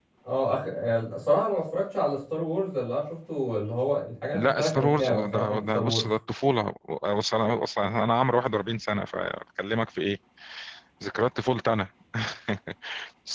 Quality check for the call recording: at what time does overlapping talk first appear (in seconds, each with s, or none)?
4.3 s